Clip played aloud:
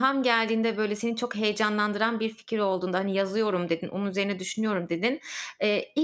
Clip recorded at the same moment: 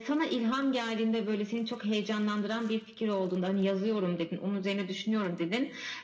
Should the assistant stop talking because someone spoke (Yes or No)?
No